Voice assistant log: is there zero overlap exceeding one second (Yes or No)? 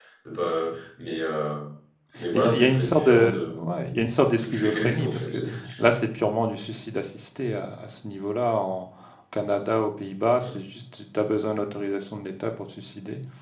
No